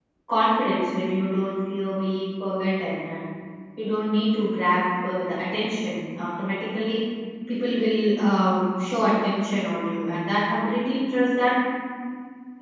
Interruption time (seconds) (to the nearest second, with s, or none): none